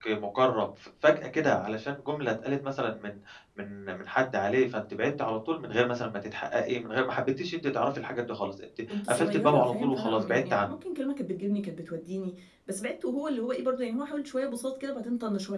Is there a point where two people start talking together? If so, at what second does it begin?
8.9 s

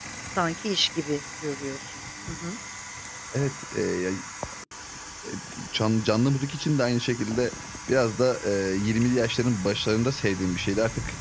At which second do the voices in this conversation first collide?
none

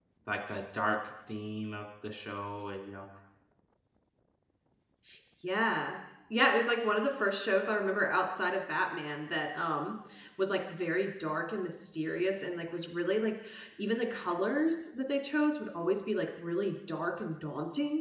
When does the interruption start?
none

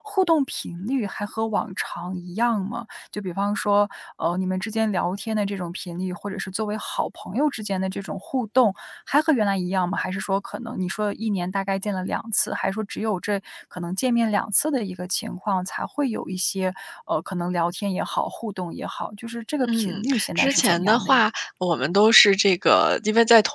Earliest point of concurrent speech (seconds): 19.6 s

